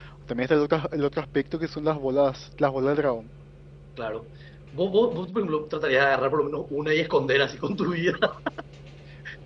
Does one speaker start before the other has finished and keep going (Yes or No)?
No